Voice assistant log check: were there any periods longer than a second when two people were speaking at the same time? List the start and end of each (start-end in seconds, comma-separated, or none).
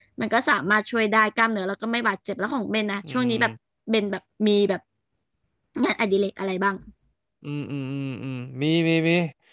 none